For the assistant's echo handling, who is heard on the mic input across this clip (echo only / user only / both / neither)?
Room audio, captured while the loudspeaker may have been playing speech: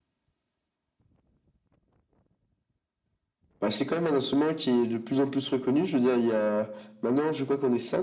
echo only